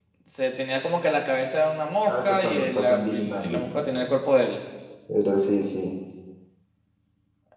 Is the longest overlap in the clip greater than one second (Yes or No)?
Yes